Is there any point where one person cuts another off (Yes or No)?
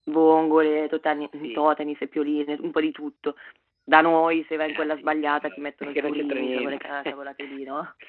Yes